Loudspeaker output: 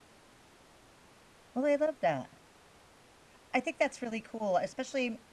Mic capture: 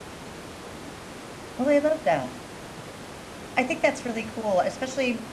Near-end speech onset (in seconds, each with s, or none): none